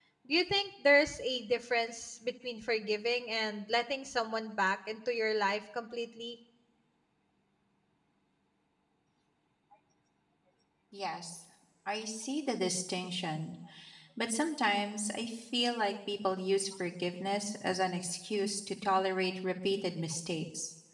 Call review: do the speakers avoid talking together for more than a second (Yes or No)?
Yes